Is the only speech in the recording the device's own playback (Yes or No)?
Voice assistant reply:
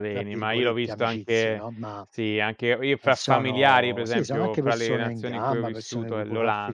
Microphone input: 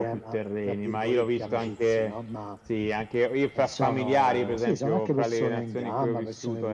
Yes